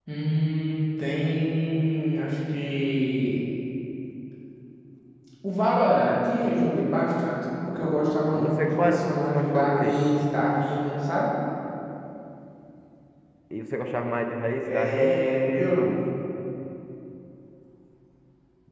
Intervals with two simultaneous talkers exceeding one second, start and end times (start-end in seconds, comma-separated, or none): 8.3-10.0, 14.6-15.9